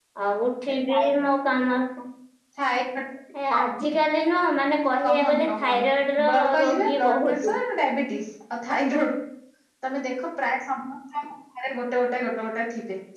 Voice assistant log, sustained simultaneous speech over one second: present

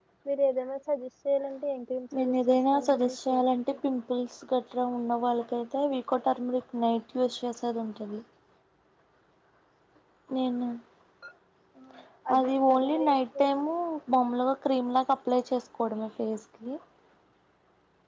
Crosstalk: present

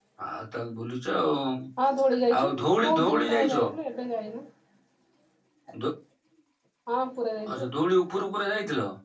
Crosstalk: present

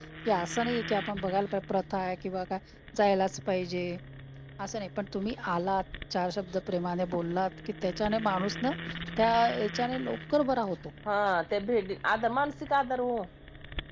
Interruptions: none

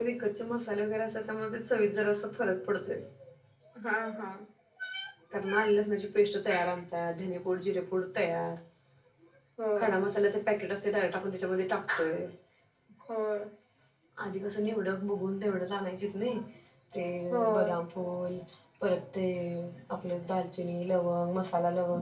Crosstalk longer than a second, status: none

